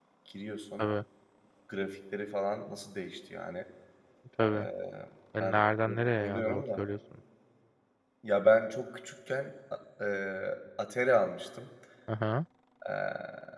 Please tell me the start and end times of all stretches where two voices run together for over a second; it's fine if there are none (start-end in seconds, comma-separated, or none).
5.4-6.8